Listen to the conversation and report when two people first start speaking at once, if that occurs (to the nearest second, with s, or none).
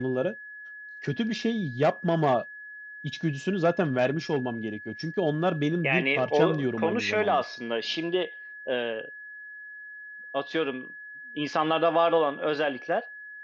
6 s